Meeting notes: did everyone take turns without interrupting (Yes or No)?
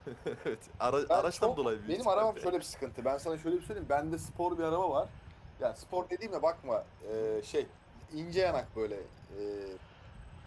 No